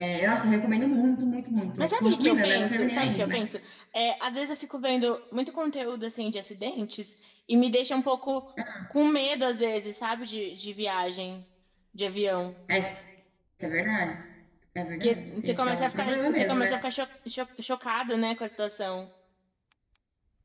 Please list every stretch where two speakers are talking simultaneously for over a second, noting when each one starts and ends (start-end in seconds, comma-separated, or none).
1.8-3.4, 15.0-16.7